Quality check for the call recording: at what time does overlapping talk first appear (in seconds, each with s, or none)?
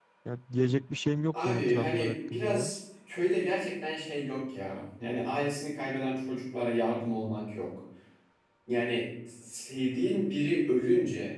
1.3 s